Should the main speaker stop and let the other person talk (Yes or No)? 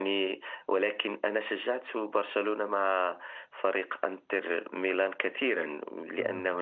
No